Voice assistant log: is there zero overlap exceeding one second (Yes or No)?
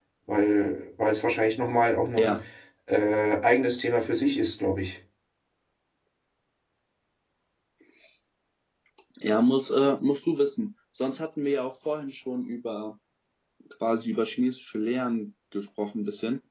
Yes